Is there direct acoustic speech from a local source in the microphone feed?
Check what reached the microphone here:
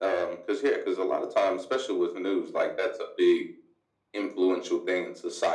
No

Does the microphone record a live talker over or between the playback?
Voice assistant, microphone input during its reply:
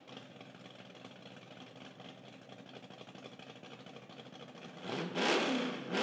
No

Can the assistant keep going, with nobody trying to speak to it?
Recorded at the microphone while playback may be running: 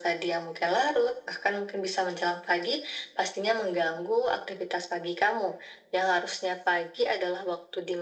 Yes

